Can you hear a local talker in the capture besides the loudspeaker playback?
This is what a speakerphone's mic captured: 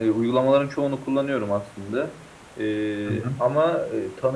Yes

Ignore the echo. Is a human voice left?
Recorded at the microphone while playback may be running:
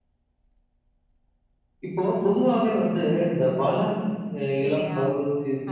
Yes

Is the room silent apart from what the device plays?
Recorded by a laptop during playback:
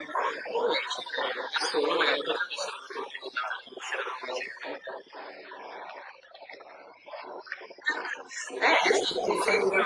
No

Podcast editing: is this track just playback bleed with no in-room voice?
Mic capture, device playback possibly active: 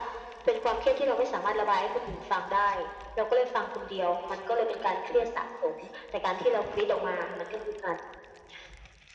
Yes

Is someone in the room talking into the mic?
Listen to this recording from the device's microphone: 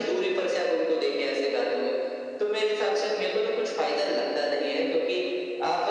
No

